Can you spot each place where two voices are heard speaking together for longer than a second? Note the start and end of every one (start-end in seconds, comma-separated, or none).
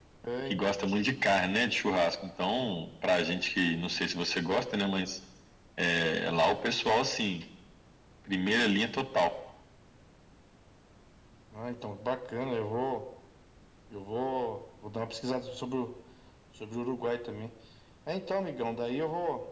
none